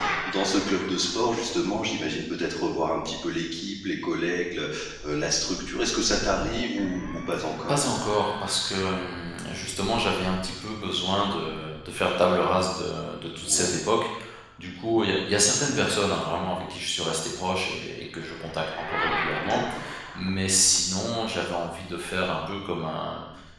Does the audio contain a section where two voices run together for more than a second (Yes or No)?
No